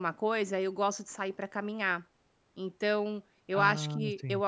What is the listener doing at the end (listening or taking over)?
listening